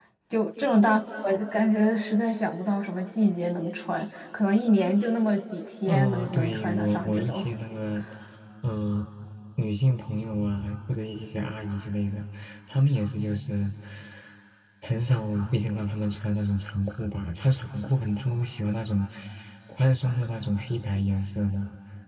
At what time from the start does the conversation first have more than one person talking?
6 s

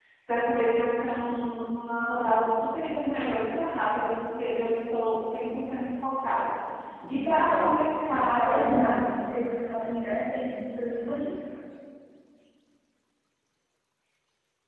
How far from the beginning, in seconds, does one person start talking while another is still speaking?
7 s

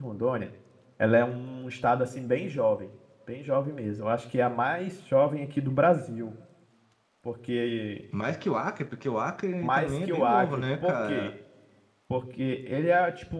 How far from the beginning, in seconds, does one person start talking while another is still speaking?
10 s

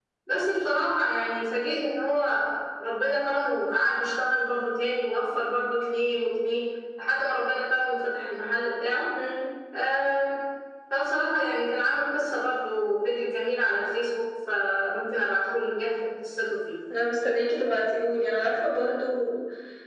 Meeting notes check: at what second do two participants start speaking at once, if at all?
none

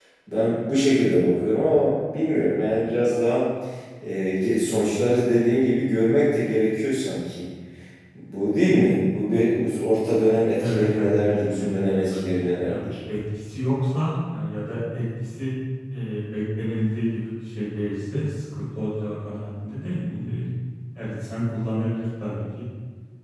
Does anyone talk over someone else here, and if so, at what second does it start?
11 s

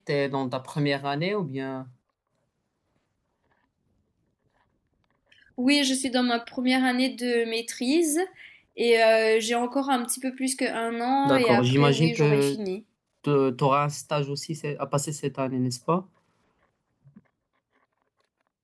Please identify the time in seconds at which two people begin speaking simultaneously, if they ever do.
11 s

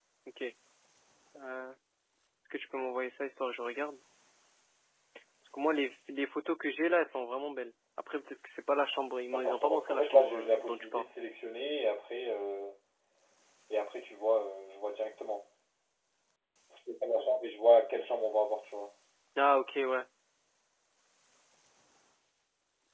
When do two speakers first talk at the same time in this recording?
9 s

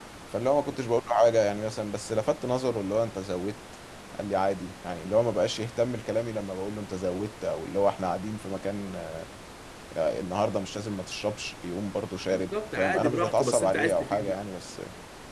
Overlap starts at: 12 s

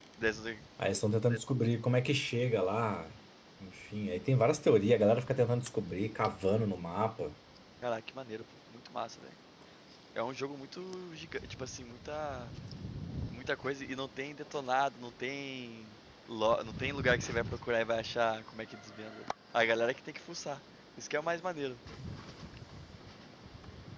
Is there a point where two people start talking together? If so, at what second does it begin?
none

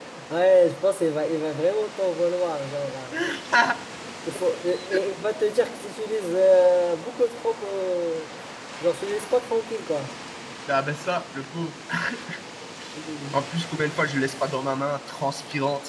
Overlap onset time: none

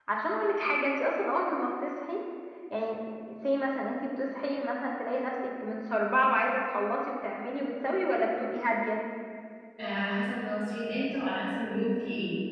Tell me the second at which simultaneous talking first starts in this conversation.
none

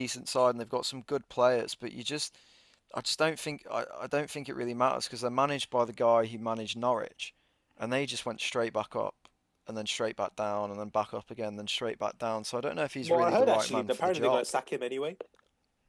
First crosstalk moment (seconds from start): 13 s

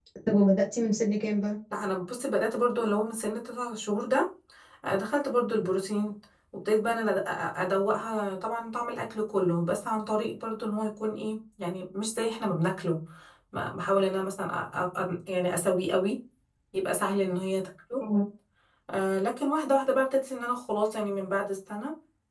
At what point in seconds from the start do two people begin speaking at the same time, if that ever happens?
none

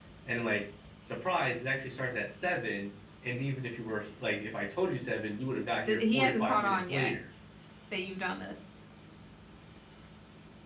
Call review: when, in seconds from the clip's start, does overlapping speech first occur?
6 s

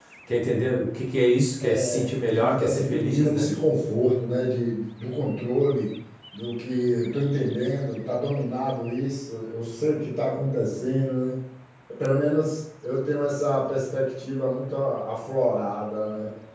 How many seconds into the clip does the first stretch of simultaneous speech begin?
2 s

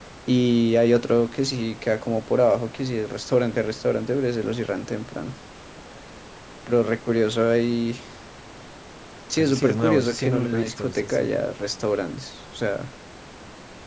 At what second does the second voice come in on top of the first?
9 s

